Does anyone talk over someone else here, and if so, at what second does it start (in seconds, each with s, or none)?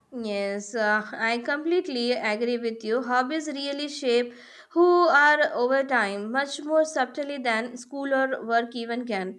none